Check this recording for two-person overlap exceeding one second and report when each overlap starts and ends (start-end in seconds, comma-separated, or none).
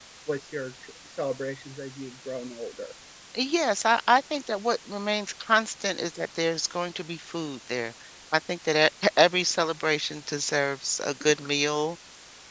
none